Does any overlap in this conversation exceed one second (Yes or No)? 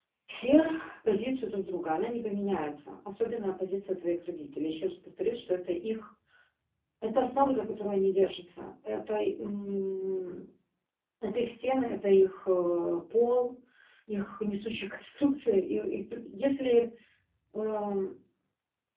No